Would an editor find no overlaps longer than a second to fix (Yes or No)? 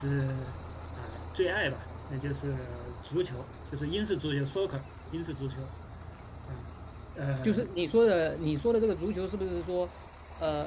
Yes